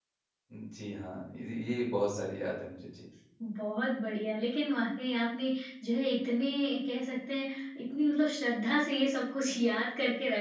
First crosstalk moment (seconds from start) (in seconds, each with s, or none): none